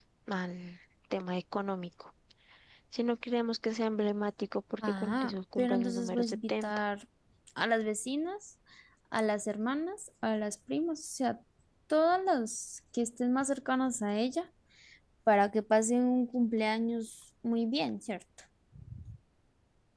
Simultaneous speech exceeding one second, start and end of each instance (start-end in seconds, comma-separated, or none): 4.8-6.8